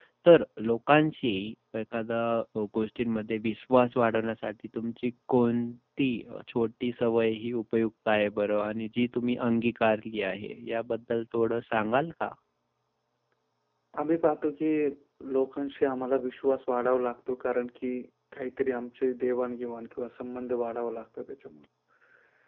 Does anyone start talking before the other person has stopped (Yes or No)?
No